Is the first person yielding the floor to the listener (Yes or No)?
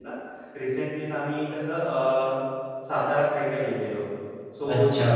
No